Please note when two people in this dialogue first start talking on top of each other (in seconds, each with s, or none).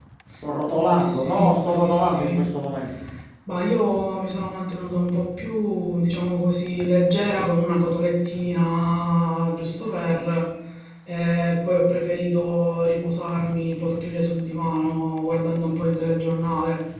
0.7 s